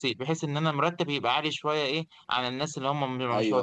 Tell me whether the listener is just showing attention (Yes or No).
No